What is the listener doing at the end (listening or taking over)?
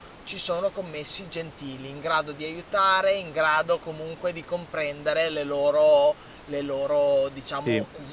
taking over